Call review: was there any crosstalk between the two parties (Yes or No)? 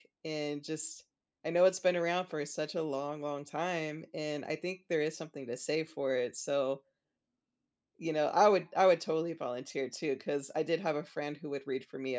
No